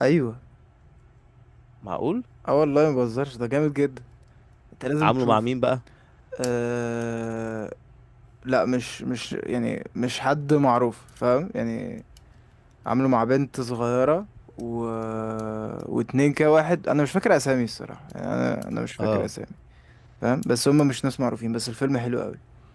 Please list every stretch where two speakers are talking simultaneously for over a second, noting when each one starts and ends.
none

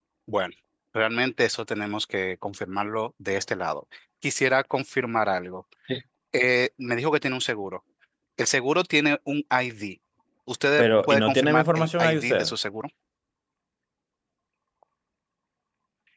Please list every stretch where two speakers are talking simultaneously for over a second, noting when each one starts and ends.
10.8-12.5

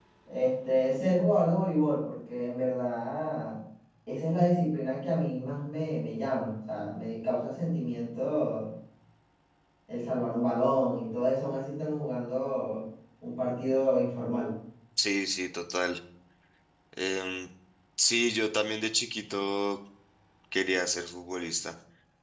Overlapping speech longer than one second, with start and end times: none

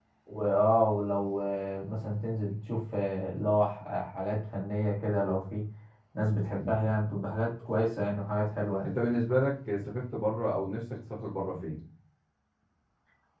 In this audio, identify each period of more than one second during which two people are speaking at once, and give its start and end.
none

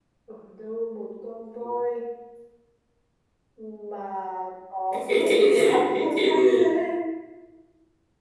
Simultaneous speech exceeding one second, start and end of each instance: 4.9-6.6

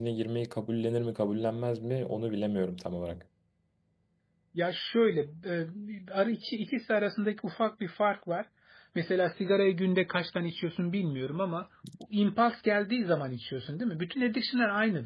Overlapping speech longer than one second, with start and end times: none

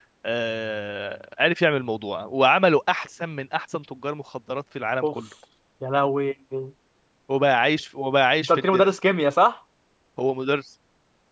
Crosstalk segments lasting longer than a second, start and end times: none

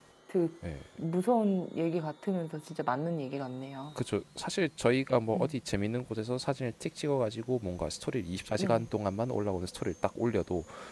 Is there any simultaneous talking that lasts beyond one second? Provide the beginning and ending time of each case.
none

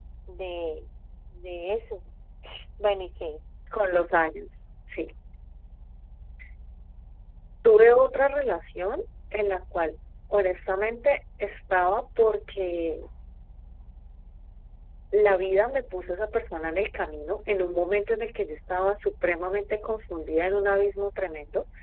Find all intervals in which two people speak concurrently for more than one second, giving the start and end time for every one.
none

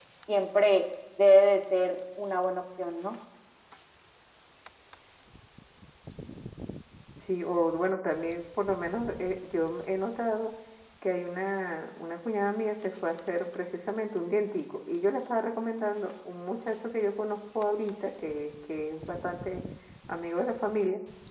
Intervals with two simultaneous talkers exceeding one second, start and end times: none

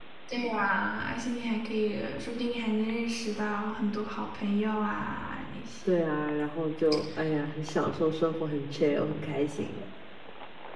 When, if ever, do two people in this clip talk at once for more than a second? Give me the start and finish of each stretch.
none

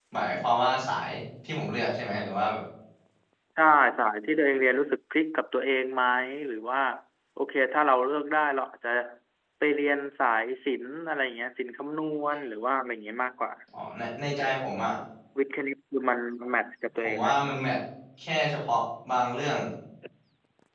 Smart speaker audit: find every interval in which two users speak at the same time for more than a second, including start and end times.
none

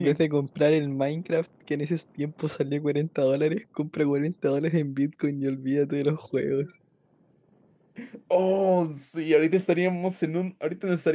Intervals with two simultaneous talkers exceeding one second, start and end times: none

